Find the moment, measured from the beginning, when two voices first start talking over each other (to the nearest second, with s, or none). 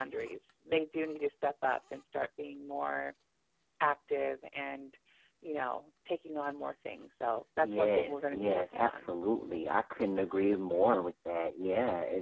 8 s